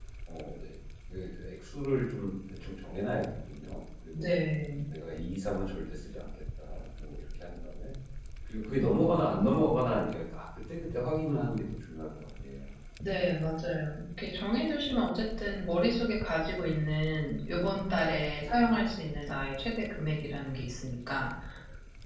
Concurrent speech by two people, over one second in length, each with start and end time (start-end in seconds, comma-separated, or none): none